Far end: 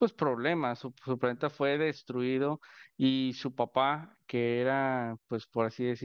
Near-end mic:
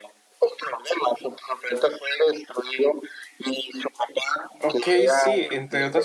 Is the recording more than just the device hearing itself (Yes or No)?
Yes